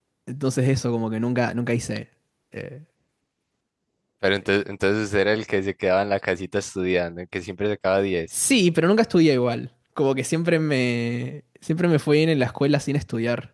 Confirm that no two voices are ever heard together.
Yes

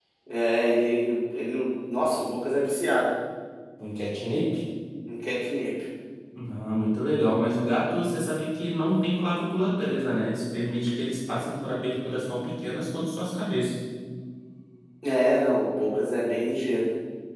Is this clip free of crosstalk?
Yes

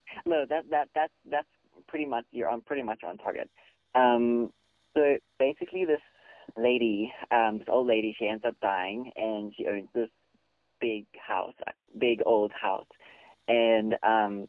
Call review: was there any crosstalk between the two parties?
No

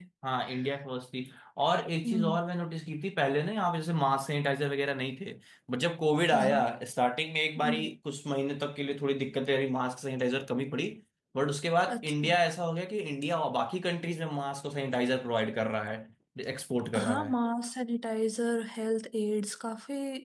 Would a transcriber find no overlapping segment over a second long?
Yes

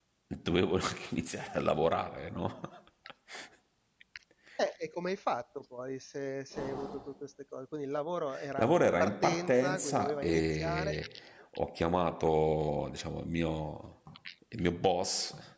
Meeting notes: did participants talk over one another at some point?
Yes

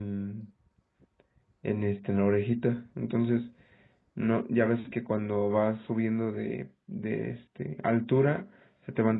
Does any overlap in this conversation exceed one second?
No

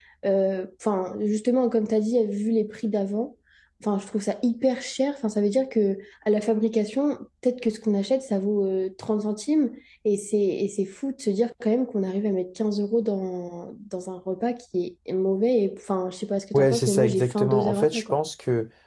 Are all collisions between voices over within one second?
No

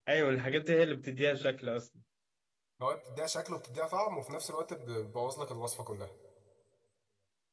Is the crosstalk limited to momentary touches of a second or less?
Yes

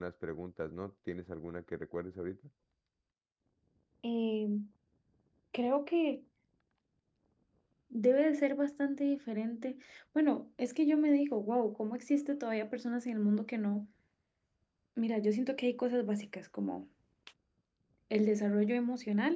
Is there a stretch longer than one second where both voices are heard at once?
No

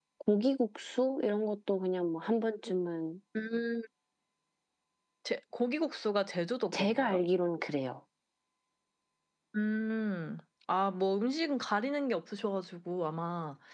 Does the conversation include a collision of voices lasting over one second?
No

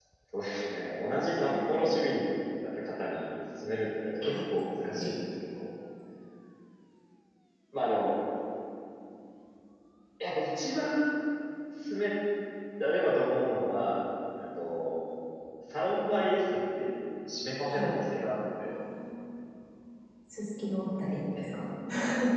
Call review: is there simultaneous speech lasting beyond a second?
No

